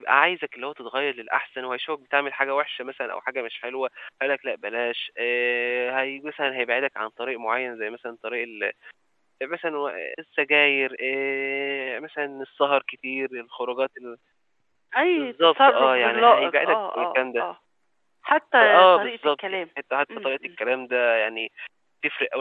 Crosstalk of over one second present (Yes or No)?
Yes